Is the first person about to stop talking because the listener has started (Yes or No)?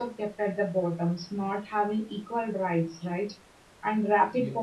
No